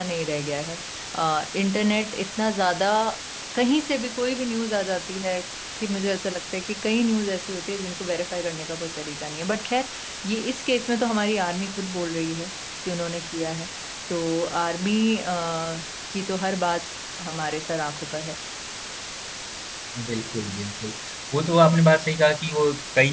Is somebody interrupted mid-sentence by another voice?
No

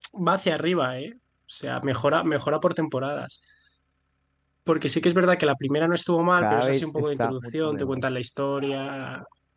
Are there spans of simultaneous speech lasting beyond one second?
Yes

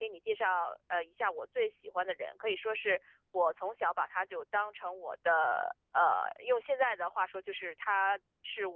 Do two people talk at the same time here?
No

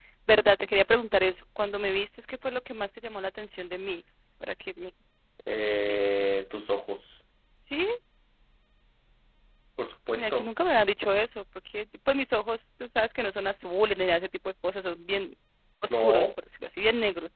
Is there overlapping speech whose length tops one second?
No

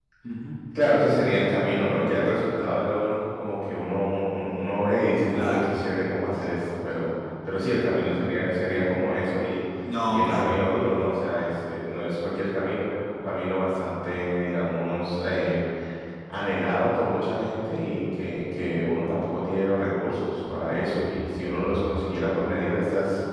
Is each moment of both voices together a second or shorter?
Yes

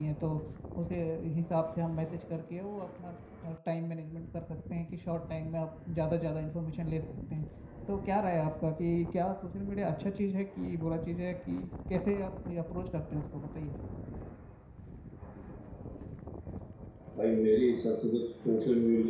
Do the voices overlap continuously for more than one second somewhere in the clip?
No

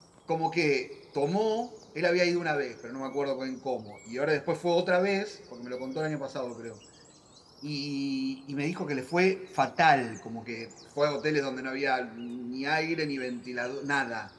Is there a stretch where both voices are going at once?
No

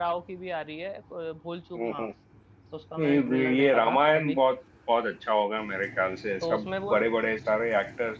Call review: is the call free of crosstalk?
No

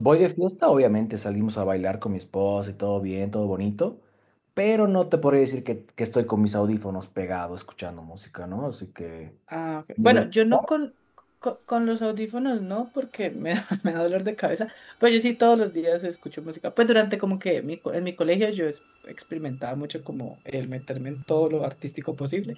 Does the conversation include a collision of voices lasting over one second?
No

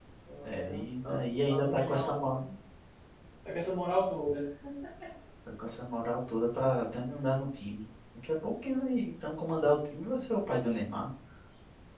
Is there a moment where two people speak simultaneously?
Yes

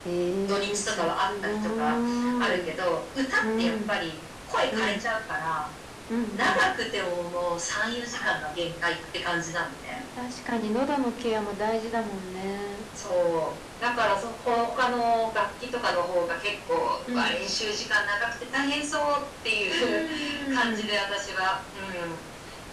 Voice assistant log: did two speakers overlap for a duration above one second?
Yes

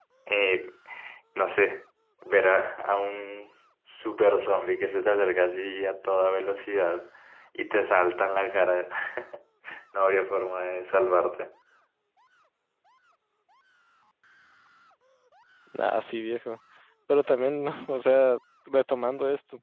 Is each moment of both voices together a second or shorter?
Yes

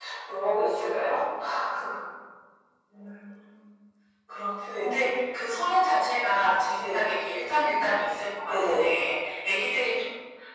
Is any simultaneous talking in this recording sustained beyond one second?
No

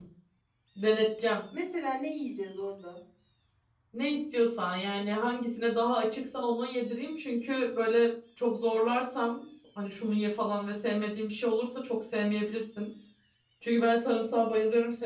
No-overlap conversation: Yes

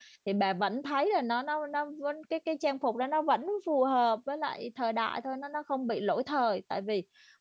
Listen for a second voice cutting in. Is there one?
No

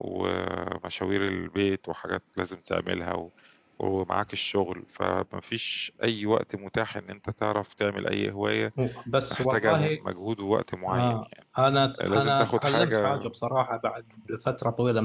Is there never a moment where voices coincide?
No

